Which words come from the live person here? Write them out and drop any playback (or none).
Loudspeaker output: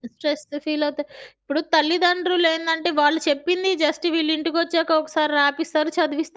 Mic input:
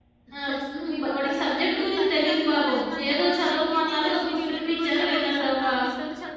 ఆహ్, హుహు. వాడికి సబ్జెక్ట్ గురించి తెలీదు పాపం. ఏదో చదవమన్నారు ఒక పుస్తకం ఇచ్చారు లేదంటే ఒక